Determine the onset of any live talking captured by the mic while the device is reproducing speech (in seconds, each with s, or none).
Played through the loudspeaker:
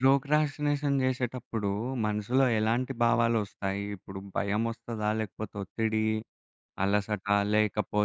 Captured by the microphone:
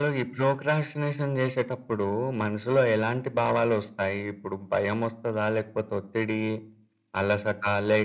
none